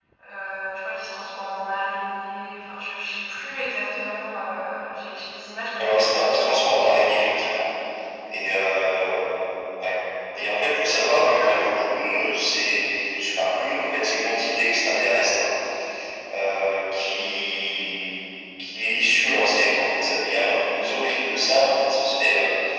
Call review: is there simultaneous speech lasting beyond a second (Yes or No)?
Yes